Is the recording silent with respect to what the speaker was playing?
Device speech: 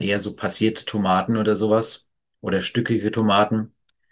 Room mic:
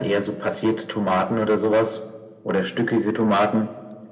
No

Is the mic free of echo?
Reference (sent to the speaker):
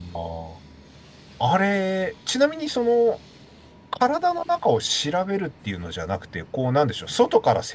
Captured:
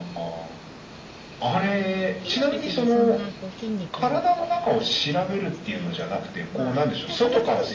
No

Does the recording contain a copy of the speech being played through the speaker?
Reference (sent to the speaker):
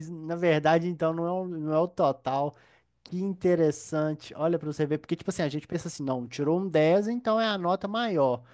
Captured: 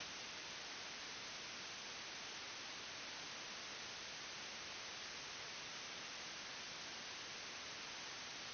No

